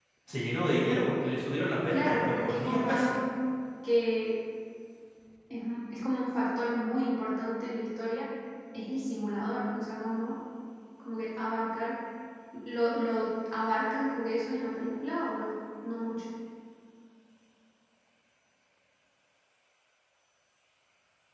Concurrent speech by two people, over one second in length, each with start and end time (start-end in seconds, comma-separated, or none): 1.9-3.1